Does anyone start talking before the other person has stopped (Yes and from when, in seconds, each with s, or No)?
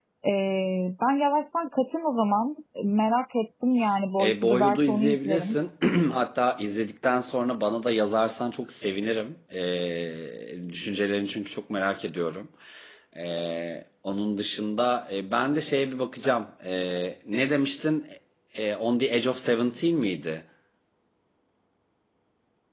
Yes, from 4.2 s